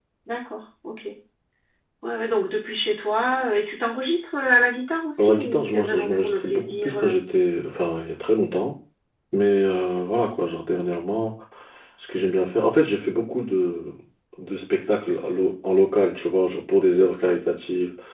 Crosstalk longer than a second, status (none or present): present